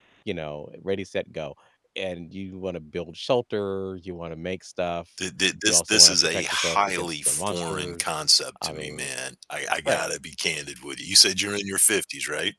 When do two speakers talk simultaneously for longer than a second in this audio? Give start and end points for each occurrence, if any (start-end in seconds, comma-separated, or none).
5.7-8.1